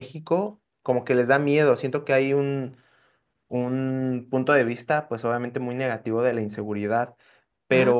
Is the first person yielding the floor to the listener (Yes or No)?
No